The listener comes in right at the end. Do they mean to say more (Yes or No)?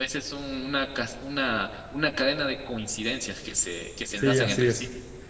Yes